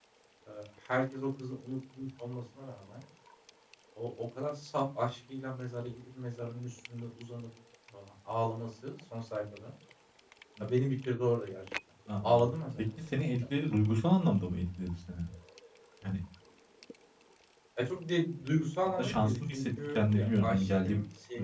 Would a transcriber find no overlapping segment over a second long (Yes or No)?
No